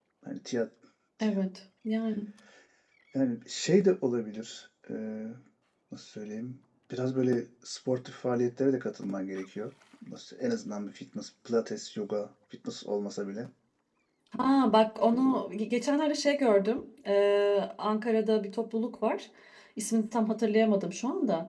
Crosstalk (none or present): none